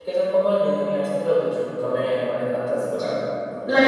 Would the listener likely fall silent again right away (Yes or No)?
No